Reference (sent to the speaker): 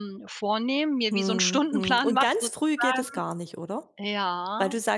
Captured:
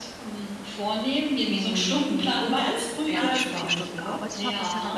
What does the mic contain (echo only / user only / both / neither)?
both